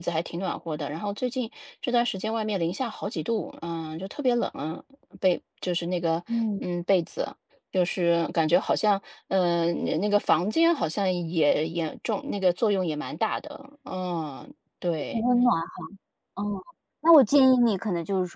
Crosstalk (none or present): none